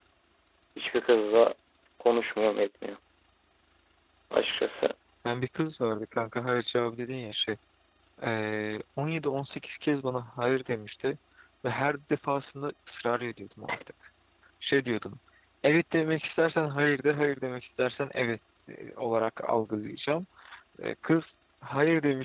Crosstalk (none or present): none